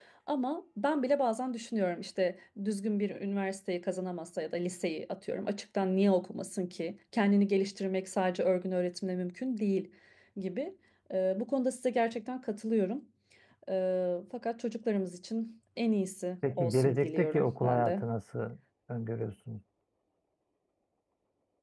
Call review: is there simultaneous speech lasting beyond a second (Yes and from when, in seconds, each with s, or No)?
Yes, from 16.4 s